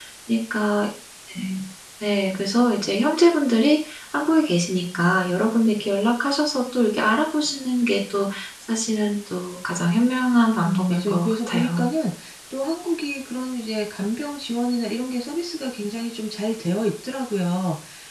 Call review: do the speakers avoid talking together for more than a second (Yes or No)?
No